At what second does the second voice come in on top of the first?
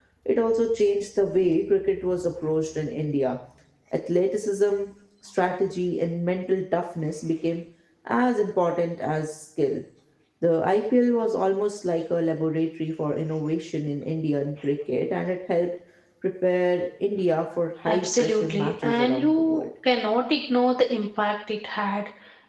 17.9 s

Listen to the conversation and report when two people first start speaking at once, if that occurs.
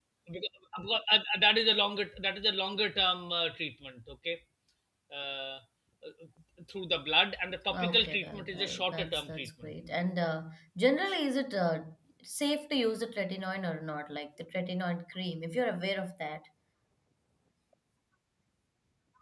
7.7 s

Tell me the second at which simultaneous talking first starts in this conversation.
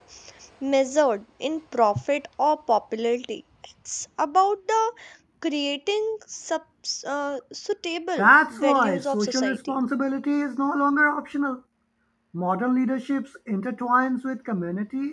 8.2 s

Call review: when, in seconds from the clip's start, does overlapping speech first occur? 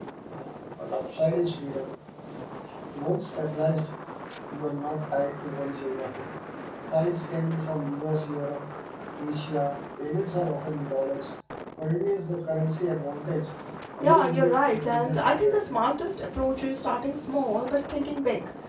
14.0 s

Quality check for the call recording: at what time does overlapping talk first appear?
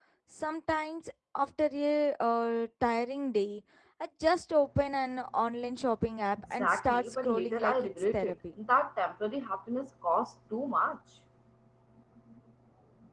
6.5 s

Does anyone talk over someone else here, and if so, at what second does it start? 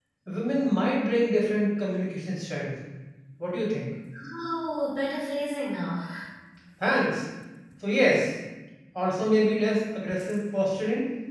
none

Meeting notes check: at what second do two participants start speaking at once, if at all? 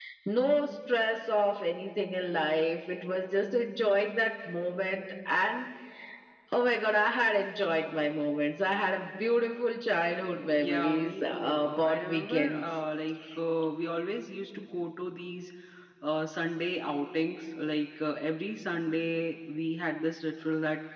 10.5 s

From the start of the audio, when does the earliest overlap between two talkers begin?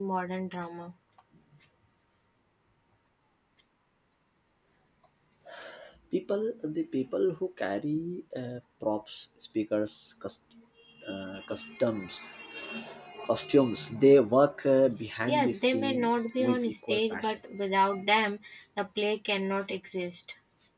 15.3 s

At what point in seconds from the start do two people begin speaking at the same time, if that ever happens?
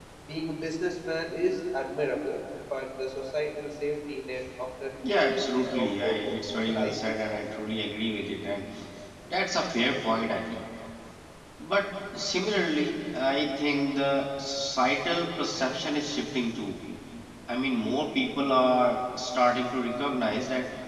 5.0 s

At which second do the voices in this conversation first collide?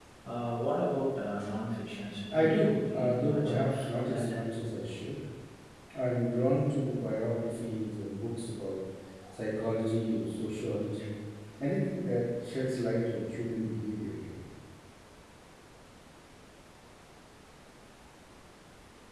2.3 s

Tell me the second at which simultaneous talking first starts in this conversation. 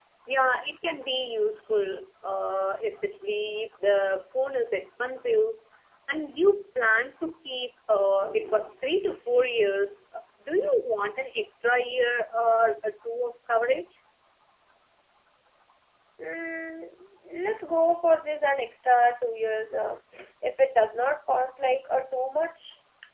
none

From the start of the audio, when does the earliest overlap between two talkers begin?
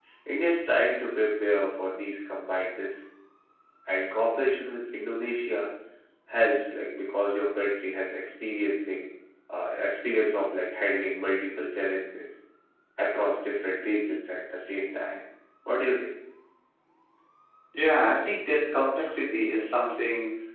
none

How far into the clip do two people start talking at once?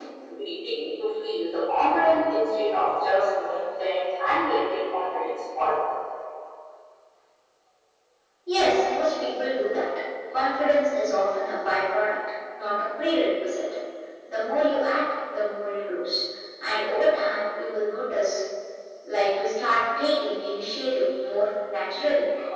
none

